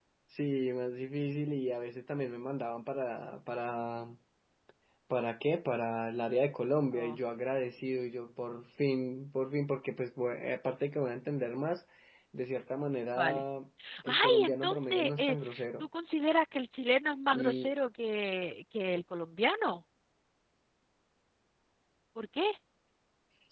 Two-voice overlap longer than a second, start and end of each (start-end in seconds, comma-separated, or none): 14.0-15.4